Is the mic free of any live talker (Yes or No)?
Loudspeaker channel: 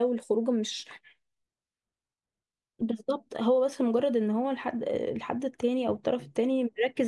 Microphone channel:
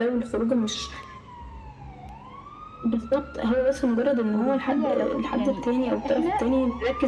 No